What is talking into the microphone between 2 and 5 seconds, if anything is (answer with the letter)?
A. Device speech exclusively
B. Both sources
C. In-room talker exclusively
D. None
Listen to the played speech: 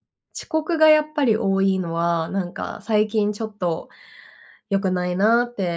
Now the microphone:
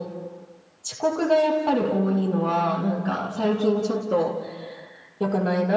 A